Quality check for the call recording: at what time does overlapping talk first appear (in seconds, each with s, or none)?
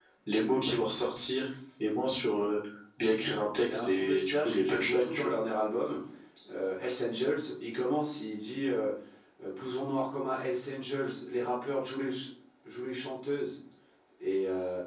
3.7 s